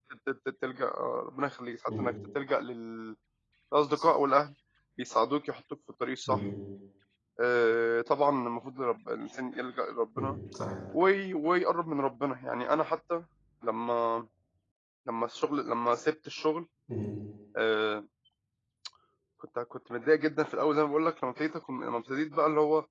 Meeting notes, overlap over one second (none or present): none